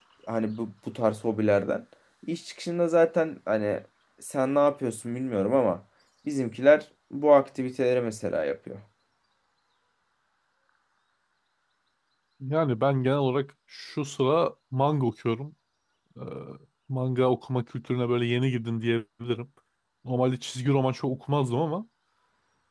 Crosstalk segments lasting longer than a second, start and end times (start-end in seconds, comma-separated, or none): none